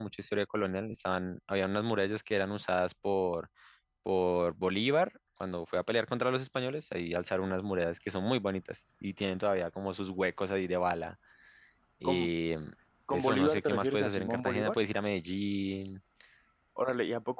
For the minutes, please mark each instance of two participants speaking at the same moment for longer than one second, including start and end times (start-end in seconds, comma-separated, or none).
13.1-14.8